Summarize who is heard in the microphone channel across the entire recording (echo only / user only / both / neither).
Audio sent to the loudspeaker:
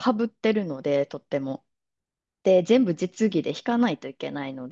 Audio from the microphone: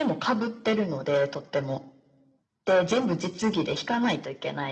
echo only